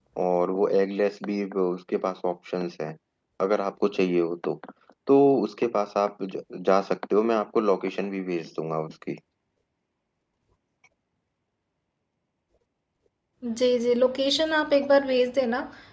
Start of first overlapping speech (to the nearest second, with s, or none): none